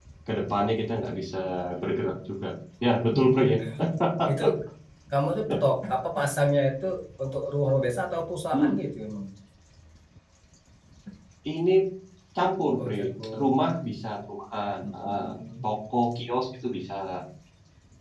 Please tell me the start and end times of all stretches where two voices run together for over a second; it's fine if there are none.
none

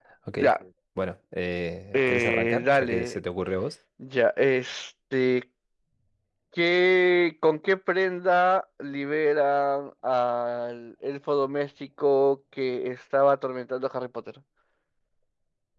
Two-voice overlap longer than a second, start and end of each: 1.9-3.2

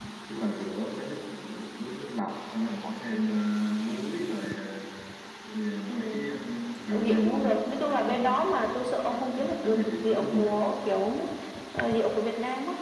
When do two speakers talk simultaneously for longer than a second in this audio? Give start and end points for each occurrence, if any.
6.9-8.4, 9.0-10.4

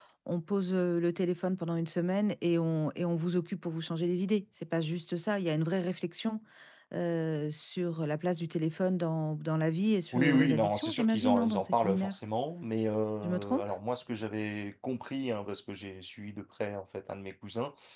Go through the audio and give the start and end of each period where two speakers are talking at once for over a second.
10.1-12.2

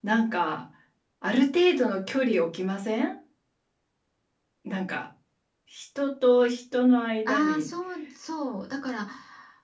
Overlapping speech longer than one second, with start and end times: none

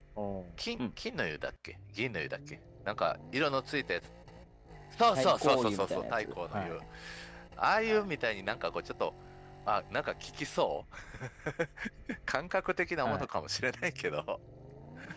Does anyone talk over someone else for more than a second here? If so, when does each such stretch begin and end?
5.2-6.7

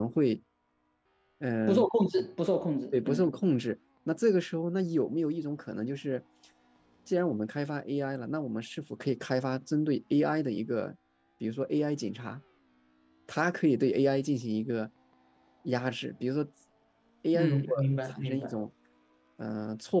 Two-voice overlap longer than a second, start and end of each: 17.3-18.6

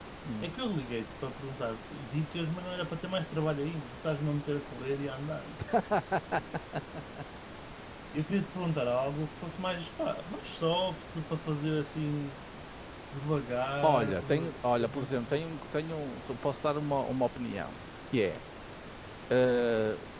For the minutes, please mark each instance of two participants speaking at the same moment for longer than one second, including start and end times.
13.8-15.4

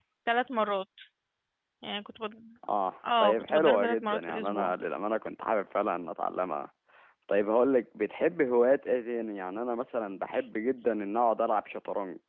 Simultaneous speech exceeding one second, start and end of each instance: 3.2-4.7

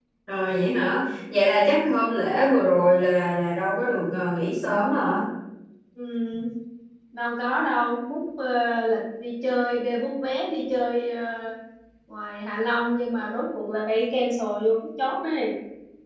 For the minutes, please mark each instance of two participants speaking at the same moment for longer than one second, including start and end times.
none

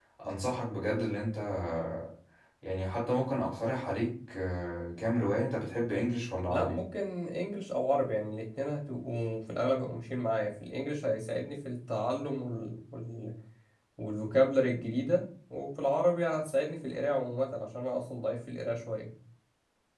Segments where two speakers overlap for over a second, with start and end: none

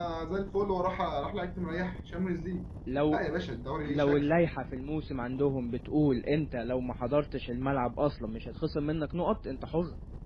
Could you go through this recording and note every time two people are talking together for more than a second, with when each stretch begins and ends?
none

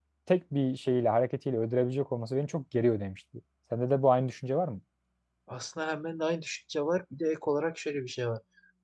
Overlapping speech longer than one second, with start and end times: none

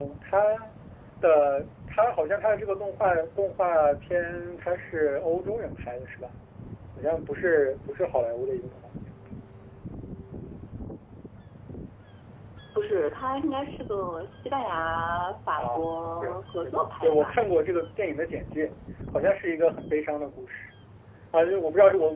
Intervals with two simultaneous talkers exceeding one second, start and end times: 15.6-17.4

